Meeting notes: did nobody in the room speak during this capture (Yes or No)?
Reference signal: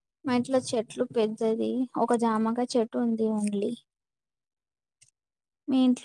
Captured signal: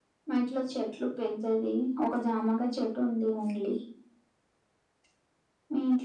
Yes